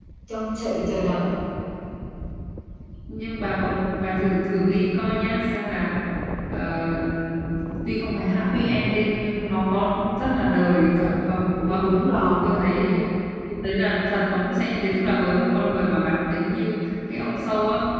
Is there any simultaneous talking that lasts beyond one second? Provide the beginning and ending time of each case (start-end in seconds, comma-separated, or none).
none